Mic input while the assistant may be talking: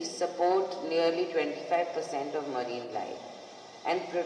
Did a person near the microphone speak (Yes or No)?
No